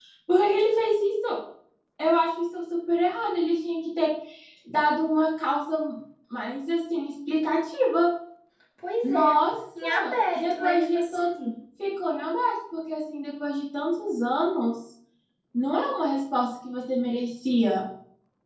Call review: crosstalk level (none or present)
present